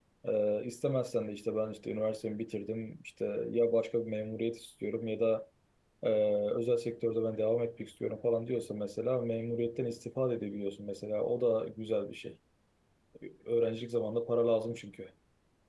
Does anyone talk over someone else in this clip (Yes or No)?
No